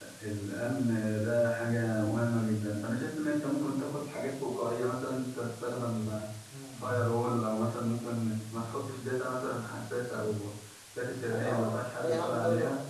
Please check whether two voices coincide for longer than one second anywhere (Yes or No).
Yes